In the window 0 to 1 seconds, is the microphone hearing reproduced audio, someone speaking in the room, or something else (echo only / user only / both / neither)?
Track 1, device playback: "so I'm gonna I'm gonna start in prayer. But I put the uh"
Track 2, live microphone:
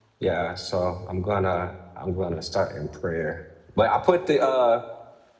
echo only